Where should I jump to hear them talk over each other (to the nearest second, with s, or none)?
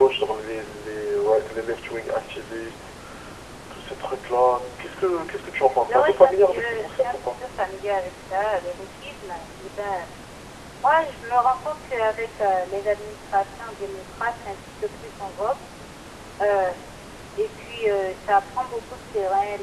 6 s